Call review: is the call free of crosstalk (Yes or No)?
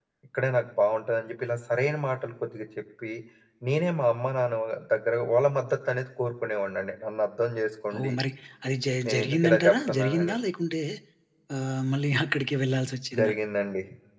No